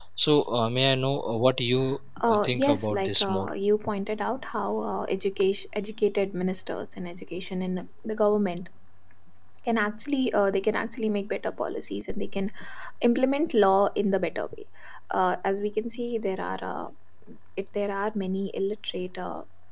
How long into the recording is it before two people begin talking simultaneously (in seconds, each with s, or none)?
2.2 s